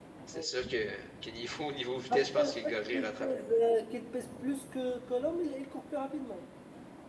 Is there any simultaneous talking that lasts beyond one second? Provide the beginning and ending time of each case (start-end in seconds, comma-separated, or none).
2.1-3.6